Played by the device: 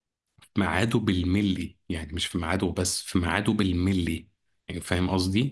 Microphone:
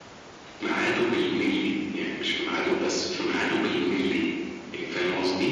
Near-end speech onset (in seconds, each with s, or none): none